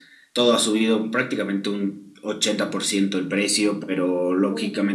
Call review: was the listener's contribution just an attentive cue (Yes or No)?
Yes